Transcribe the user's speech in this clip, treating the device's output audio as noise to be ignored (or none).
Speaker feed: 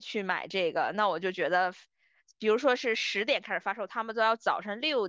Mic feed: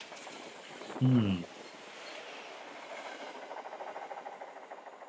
嗯